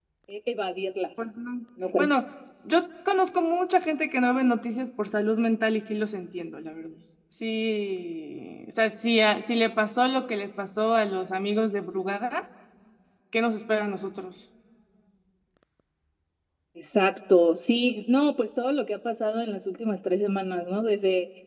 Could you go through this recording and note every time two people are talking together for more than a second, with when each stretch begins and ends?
none

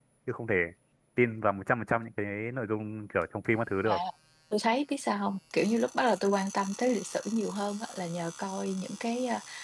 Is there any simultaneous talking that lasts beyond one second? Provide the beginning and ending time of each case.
none

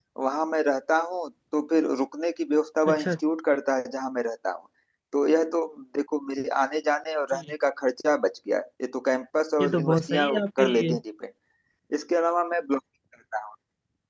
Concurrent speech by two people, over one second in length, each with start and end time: 9.6-10.9

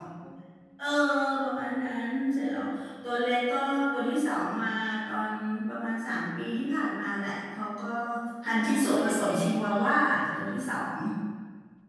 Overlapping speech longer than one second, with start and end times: 8.5-9.8

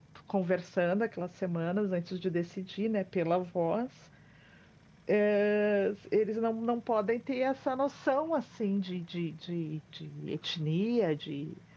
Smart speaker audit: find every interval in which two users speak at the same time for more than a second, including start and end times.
none

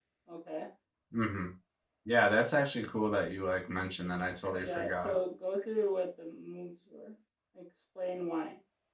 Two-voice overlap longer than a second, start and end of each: none

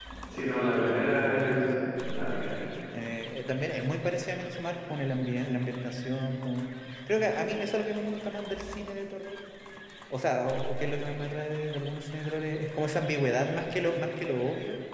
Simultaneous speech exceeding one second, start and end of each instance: none

